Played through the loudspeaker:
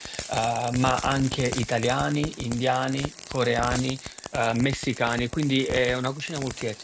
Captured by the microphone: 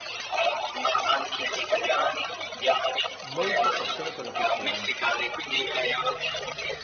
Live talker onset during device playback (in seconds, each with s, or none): 3.2 s